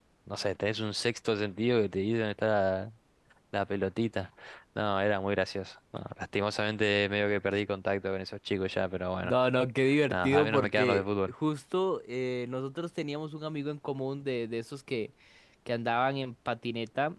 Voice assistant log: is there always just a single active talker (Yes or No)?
No